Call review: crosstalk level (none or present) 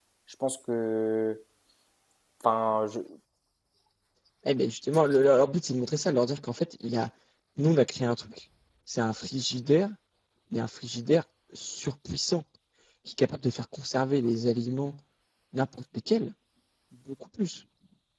none